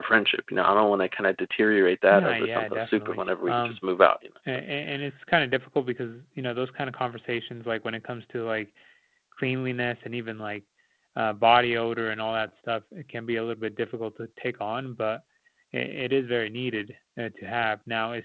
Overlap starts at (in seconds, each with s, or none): 2.1 s